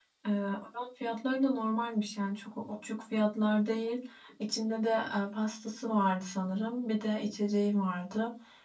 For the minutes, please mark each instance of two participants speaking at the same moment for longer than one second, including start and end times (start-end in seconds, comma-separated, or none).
none